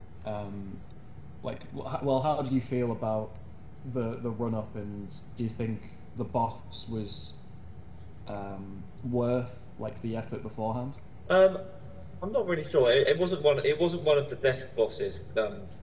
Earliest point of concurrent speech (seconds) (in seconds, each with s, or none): none